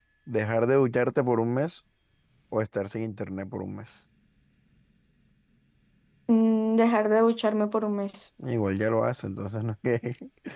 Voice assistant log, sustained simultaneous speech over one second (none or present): none